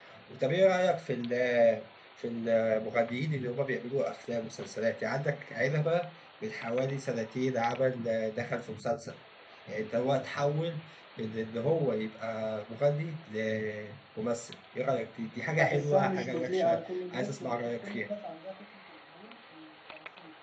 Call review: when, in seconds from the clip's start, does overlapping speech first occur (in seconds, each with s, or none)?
15.6 s